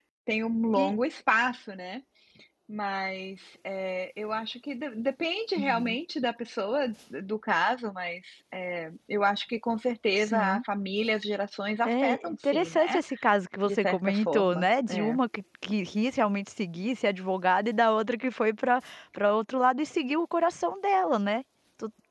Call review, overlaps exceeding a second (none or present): present